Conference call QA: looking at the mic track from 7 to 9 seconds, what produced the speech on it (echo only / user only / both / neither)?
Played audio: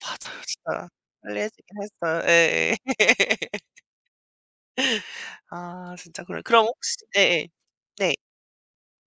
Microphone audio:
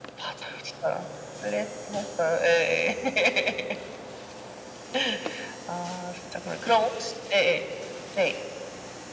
echo only